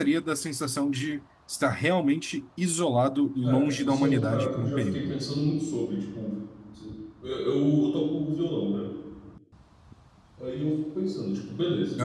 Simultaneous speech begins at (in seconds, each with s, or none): 3.4 s